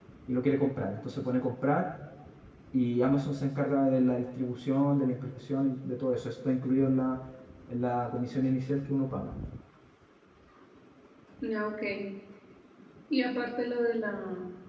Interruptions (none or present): none